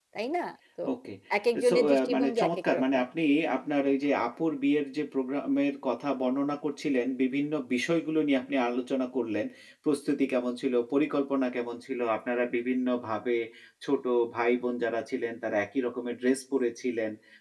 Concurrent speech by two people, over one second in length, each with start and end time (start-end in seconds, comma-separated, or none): 1.7-3.0